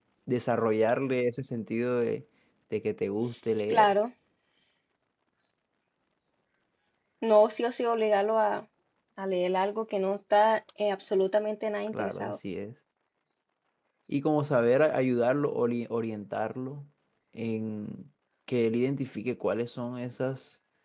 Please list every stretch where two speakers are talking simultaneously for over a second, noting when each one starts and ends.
none

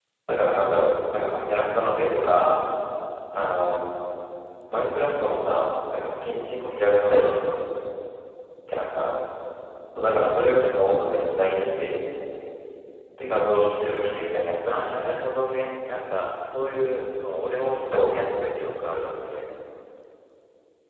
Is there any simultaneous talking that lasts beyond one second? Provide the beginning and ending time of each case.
none

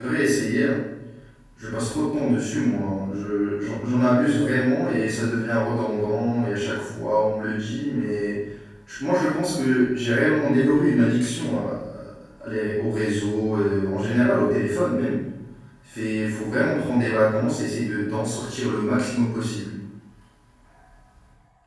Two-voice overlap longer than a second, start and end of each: none

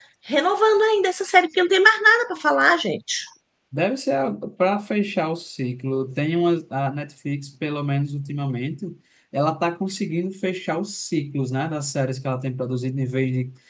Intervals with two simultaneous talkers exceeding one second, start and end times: none

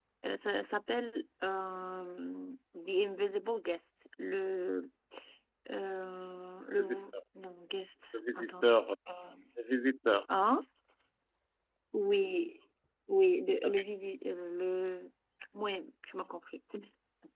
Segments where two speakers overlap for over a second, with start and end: none

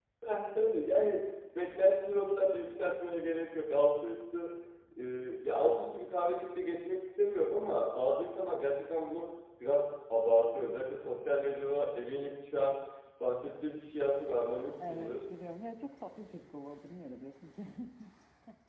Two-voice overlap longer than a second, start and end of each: none

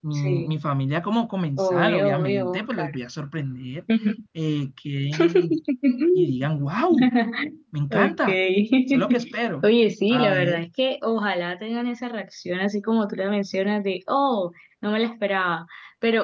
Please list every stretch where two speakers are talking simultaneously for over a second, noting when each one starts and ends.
1.6-2.9

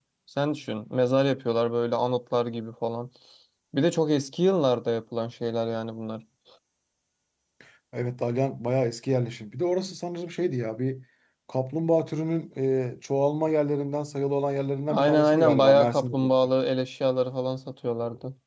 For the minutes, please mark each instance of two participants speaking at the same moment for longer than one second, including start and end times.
14.9-16.1

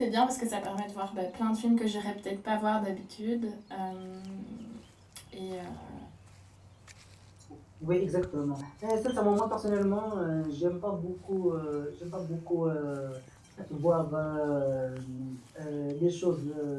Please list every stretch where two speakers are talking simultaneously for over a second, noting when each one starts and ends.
none

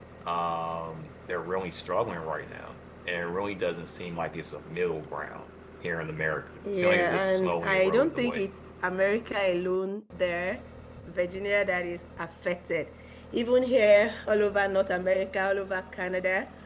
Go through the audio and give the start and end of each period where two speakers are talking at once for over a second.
6.8-8.4

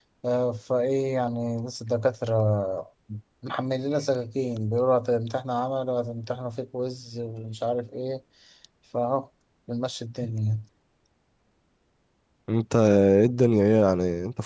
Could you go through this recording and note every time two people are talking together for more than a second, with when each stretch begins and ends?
none

